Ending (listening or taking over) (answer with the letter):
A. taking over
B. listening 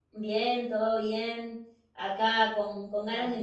B